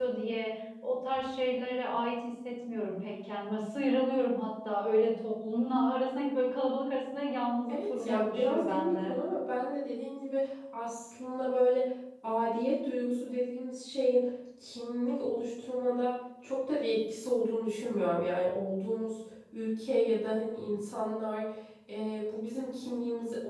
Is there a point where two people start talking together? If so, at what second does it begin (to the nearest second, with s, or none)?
8 s